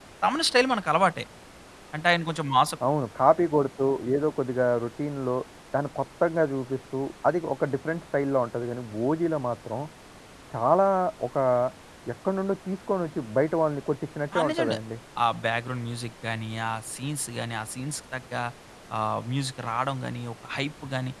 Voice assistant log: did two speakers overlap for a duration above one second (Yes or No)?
No